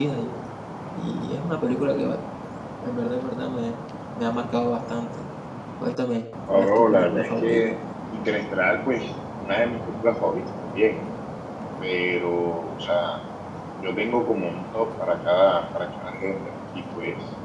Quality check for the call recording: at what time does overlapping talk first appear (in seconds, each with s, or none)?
6.5 s